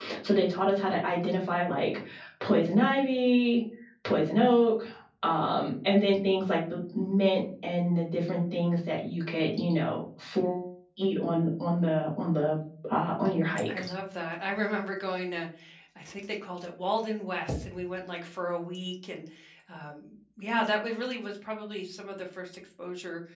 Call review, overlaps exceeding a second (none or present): none